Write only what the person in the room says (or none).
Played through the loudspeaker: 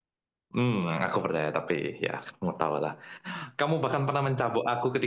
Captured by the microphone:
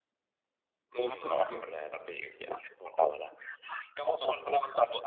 Apa tuh Jo?